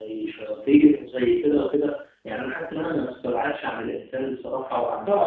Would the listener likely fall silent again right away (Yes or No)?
No